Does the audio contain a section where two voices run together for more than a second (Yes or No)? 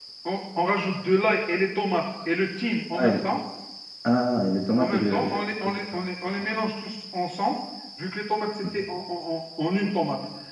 Yes